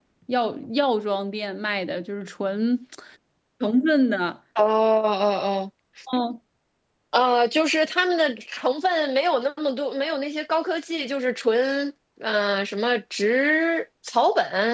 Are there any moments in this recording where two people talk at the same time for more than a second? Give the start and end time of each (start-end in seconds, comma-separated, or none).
none